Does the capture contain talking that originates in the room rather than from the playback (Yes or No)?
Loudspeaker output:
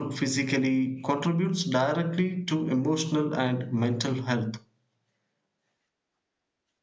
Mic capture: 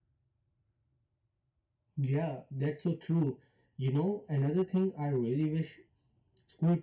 Yes